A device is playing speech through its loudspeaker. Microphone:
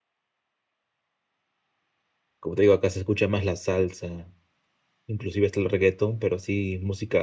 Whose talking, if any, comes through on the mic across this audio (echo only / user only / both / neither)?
user only